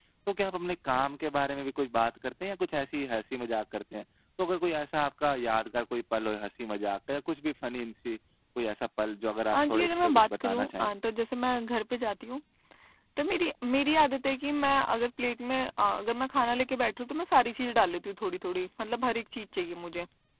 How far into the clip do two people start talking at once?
9.5 s

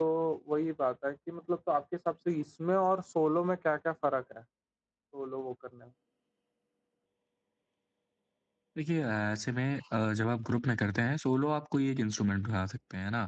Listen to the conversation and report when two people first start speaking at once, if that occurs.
none

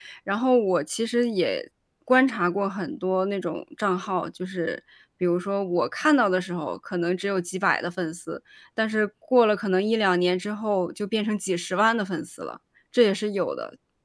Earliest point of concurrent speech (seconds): none

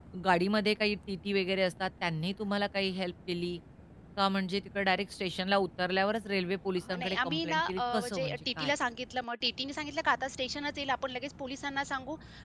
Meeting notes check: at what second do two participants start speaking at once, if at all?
6.9 s

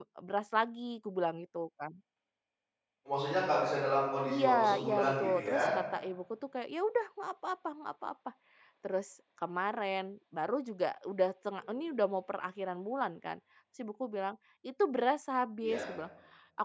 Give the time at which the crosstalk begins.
4.3 s

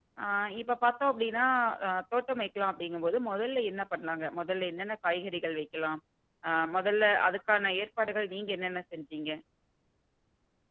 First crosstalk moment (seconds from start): none

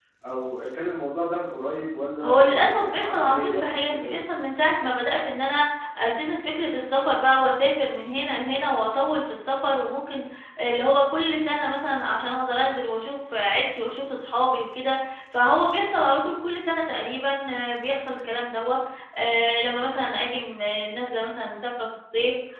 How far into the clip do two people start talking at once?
2.2 s

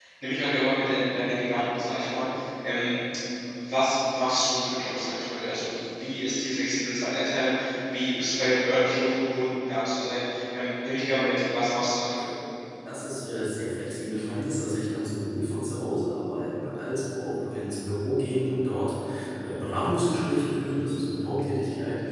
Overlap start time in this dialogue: none

